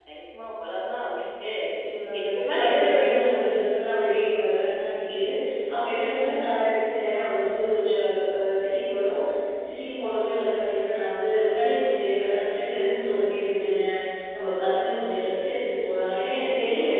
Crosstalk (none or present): present